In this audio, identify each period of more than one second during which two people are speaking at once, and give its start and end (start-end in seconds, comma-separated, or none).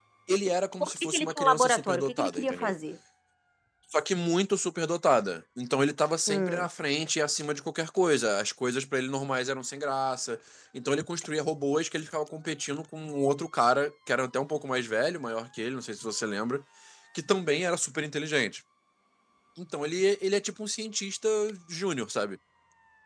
0.8-2.7